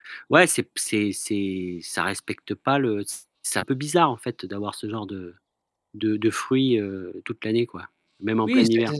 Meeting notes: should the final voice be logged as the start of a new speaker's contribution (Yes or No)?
Yes